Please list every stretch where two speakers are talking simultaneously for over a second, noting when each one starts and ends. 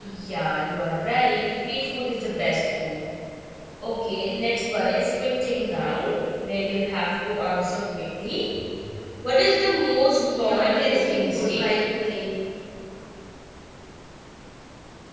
10.1-11.6

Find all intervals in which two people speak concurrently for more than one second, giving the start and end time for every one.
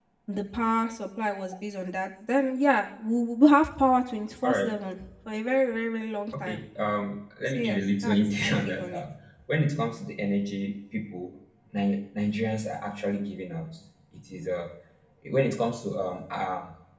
7.5-9.0

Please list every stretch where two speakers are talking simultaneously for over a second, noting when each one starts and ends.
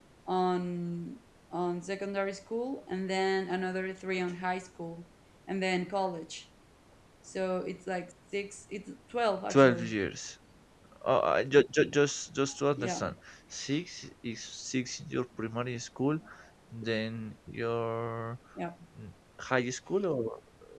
none

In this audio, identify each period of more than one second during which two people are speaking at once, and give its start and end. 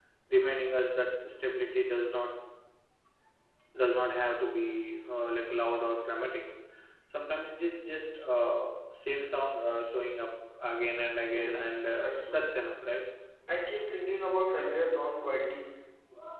11.3-12.6

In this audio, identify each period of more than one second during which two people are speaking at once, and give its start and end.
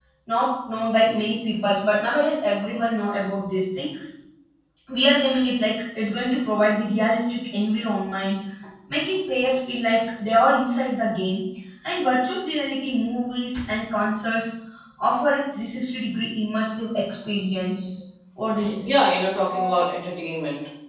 none

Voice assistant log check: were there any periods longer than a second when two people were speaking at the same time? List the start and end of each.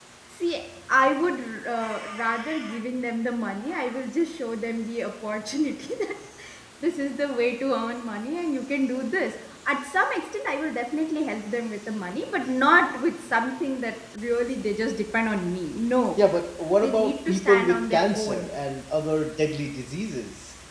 16.8-18.5

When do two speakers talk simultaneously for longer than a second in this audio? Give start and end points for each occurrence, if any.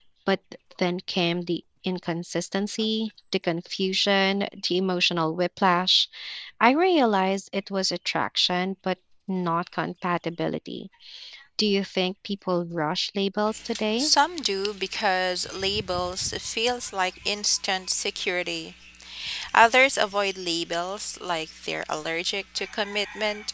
none

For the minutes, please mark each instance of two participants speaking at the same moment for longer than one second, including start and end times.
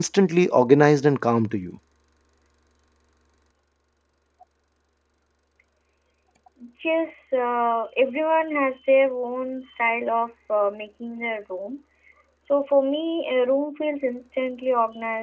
none

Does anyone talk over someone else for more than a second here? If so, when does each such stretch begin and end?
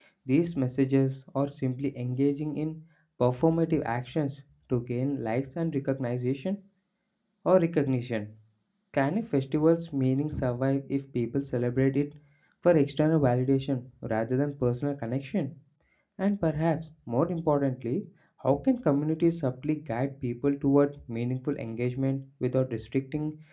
none

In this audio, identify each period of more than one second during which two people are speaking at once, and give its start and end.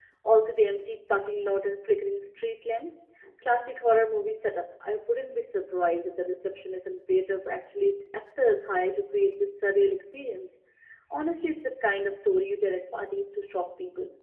none

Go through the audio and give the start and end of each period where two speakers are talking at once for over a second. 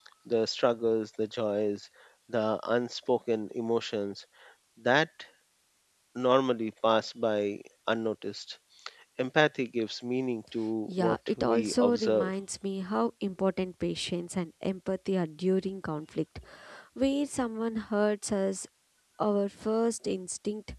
10.9-12.3

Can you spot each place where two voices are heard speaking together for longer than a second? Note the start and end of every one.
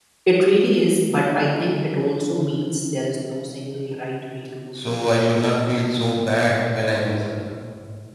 none

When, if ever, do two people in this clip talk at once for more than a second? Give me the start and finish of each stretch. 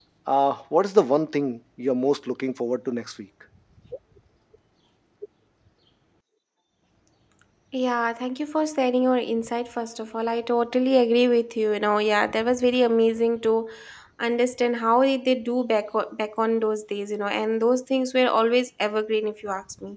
none

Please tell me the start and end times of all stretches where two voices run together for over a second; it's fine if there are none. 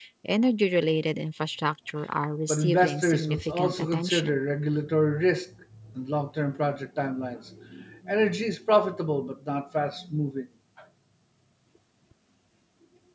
2.5-4.4

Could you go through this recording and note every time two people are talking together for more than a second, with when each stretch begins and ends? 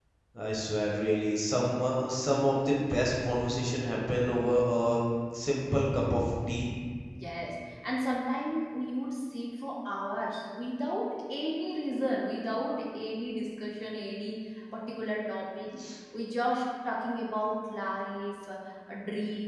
none

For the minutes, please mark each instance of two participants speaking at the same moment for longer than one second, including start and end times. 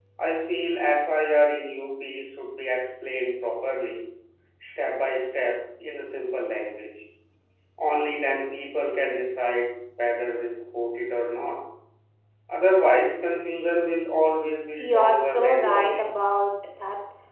14.8-16.0

